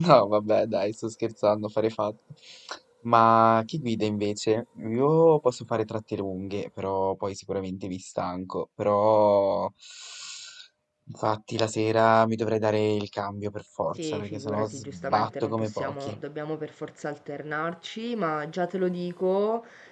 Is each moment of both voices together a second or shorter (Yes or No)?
No